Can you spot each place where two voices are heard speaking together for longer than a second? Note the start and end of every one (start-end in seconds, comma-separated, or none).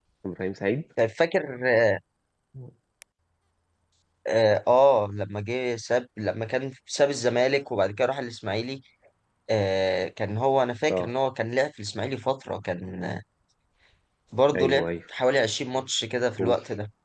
none